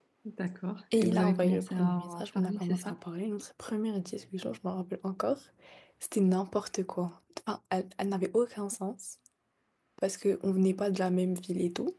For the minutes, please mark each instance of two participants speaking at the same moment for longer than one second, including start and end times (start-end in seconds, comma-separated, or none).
0.9-3.0